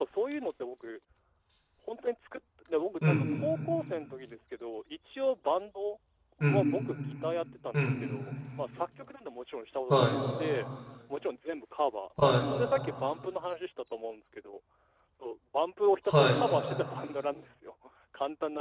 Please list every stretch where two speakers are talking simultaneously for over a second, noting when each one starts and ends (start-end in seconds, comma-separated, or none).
none